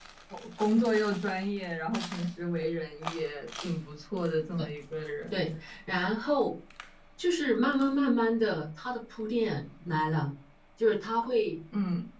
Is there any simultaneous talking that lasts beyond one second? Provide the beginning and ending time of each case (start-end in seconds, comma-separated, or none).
none